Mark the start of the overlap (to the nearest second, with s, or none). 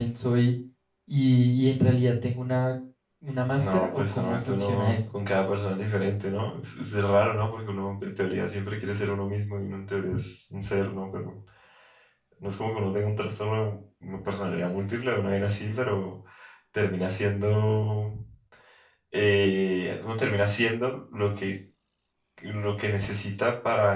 4 s